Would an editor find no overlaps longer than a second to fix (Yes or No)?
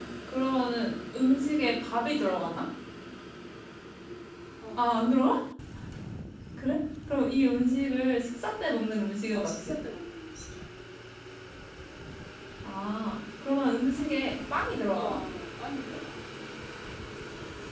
Yes